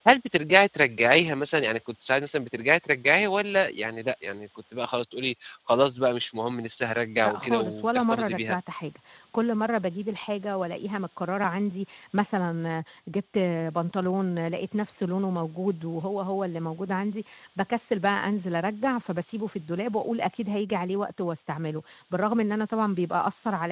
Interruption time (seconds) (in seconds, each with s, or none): 7.2 s